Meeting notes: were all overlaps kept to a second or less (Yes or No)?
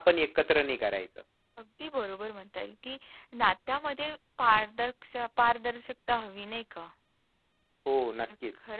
Yes